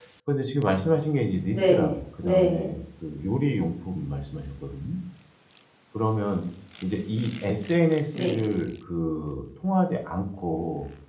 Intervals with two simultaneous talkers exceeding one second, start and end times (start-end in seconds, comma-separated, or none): 1.5-2.7